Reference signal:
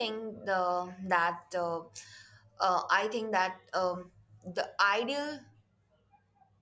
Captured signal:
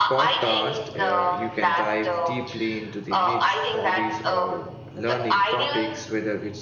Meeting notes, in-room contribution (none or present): present